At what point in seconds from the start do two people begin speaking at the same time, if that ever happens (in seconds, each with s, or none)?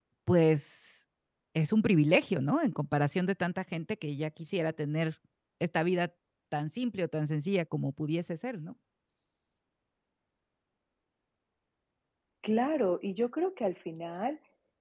none